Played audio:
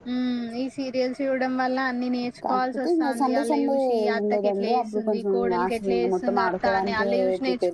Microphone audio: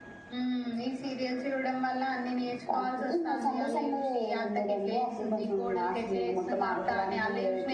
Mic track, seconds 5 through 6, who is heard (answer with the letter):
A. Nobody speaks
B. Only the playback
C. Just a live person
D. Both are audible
B